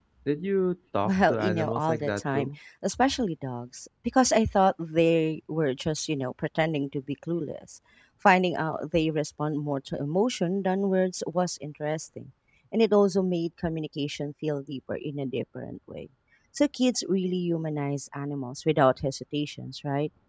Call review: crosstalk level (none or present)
present